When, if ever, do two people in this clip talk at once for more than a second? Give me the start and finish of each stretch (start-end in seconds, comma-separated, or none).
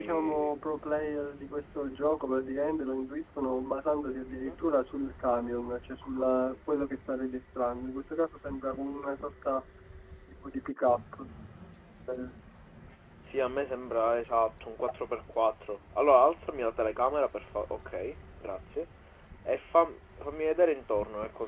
none